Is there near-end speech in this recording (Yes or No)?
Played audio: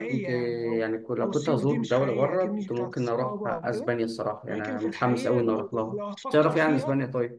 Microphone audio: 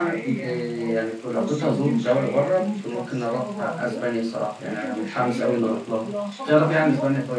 No